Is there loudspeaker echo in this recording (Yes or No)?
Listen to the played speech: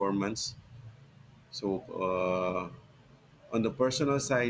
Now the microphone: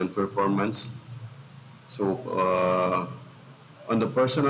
Yes